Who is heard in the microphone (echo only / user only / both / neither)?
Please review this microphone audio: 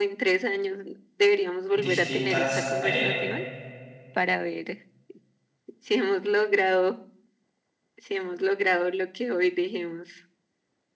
both